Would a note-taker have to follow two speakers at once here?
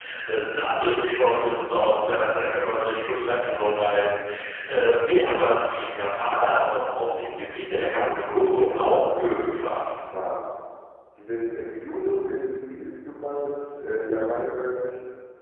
Yes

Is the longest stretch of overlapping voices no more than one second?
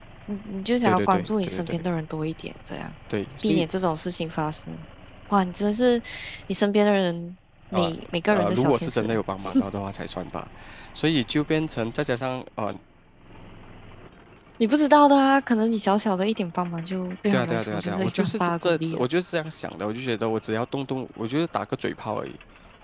No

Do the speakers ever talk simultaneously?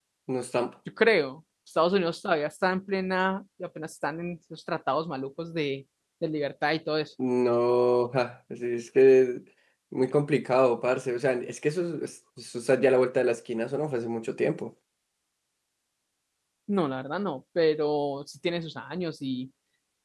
No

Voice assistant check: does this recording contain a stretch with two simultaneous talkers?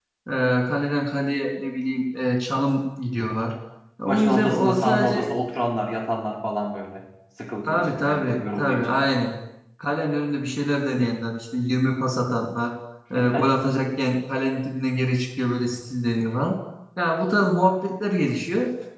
Yes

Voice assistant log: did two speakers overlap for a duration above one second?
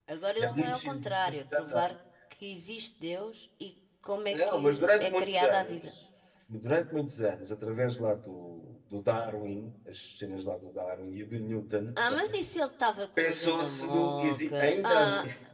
Yes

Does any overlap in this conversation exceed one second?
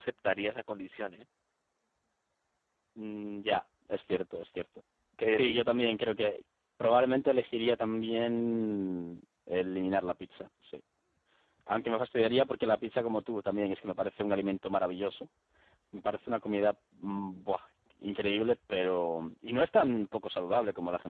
No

